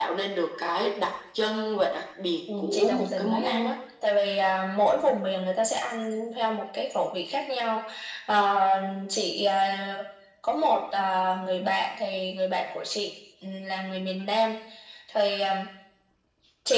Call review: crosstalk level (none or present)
present